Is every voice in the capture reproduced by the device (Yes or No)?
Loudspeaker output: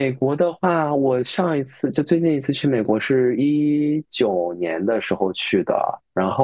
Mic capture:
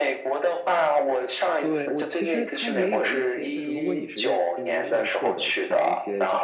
No